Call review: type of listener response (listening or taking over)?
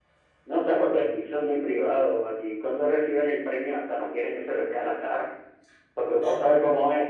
listening